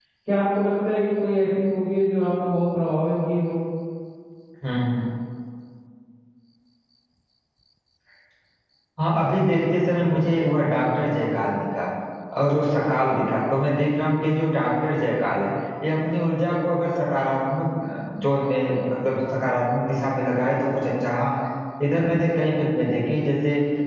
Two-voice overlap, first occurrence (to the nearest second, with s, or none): none